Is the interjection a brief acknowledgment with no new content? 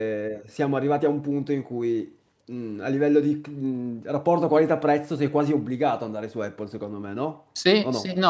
No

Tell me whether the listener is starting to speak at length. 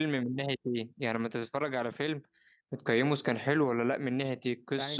Yes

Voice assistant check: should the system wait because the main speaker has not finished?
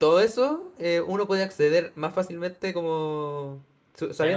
No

